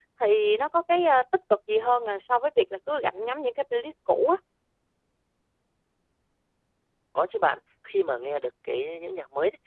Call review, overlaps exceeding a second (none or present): none